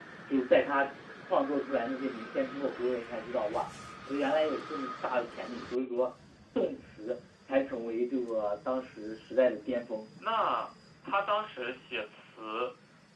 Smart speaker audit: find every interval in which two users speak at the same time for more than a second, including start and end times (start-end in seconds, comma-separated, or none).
none